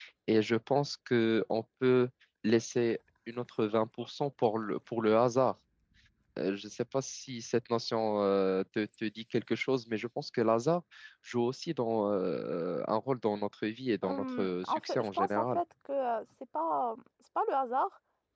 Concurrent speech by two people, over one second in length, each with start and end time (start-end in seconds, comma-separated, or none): 14.0-15.6